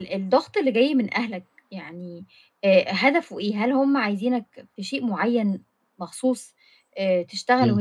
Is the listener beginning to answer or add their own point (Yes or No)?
No